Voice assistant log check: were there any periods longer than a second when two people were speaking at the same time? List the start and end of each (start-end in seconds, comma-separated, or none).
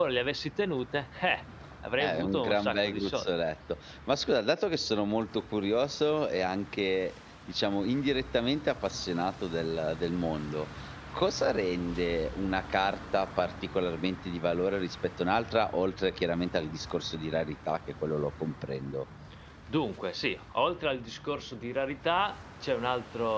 2.0-3.3